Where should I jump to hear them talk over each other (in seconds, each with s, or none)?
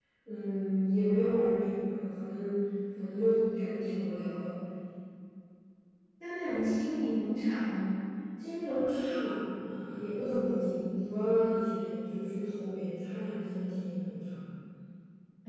none